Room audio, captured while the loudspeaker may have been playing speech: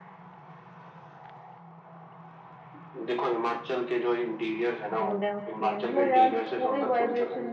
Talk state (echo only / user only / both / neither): both